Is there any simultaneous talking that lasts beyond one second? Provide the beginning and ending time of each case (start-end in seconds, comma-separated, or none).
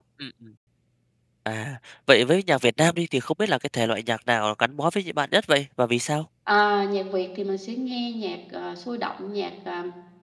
none